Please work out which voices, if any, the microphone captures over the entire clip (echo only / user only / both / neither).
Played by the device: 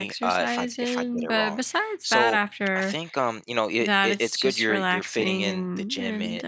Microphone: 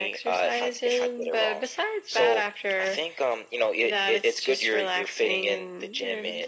echo only